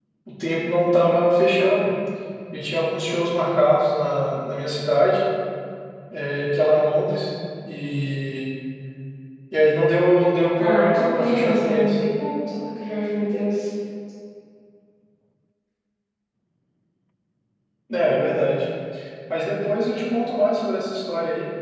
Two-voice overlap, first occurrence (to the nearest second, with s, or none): 11 s